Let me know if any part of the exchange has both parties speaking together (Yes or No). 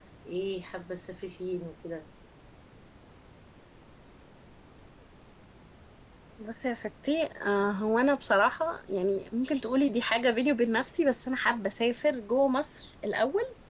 No